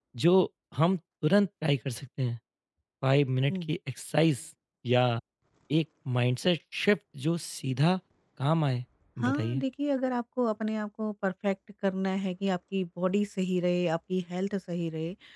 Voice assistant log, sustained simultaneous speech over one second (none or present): none